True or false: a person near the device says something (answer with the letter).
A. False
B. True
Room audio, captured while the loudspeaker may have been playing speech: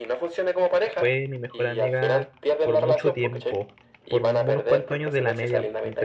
B